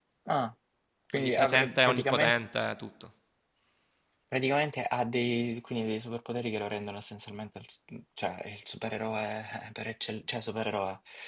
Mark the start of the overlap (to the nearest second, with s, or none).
1 s